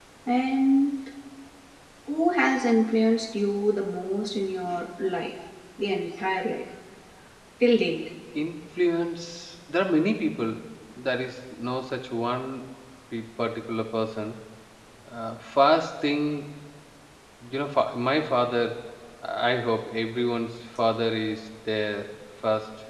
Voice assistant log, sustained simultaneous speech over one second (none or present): none